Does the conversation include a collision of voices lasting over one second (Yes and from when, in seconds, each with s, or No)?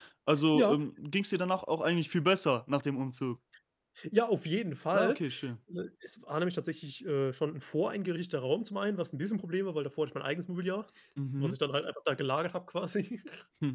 No